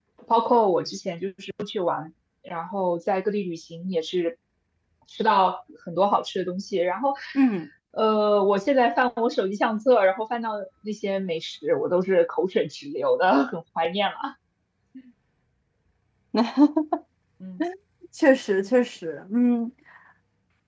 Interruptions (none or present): none